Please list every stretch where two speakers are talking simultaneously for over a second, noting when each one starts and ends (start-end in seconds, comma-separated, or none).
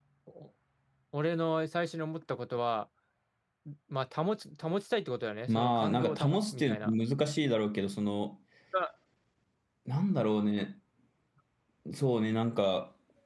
5.5-6.9